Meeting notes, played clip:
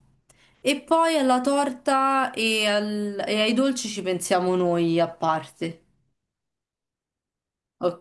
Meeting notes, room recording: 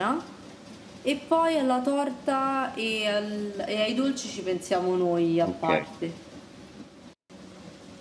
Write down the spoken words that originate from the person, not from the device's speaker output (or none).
ok.